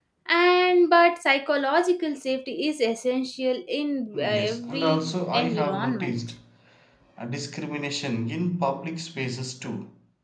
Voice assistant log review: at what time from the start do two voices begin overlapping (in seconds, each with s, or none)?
4.1 s